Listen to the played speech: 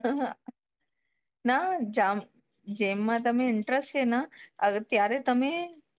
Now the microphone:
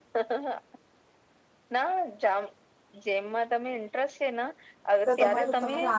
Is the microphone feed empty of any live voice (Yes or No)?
No